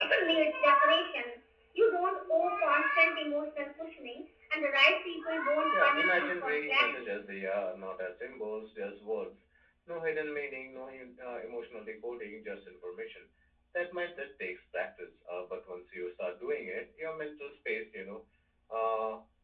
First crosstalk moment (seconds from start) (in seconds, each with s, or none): 5.7 s